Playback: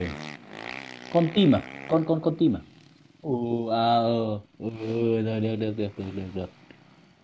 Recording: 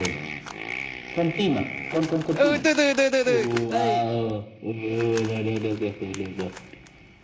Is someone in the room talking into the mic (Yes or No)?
Yes